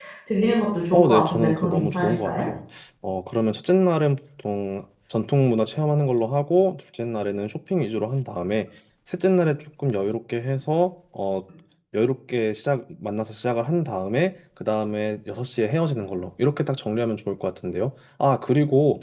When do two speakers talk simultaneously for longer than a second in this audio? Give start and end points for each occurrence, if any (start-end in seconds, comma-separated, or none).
0.9-2.5